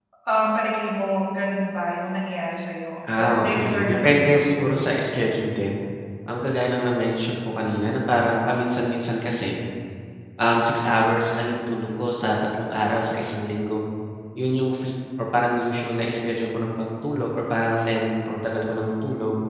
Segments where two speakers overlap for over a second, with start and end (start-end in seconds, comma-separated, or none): 3.2-5.0